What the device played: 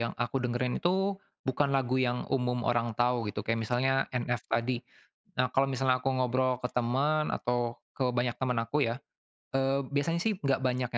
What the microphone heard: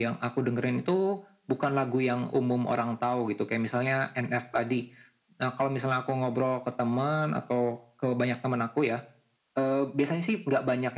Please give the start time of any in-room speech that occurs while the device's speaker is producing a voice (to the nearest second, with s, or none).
none